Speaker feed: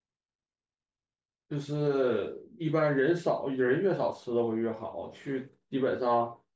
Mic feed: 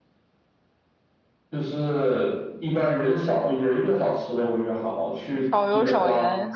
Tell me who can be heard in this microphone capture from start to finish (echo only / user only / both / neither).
both